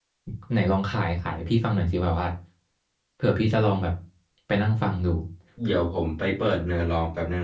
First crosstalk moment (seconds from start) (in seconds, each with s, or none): none